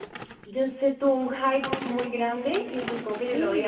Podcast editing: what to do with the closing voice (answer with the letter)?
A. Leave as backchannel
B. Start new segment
A